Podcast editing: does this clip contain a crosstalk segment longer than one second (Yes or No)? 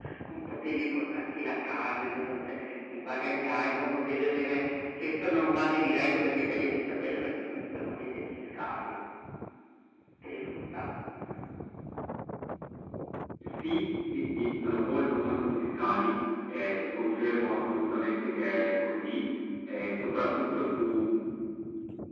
No